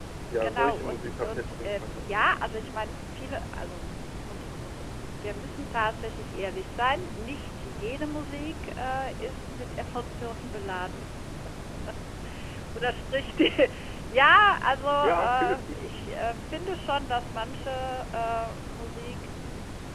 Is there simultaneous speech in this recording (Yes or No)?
Yes